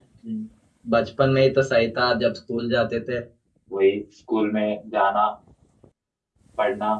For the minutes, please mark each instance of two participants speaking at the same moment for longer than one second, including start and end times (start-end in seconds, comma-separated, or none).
none